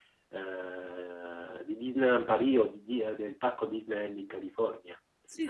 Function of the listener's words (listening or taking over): taking over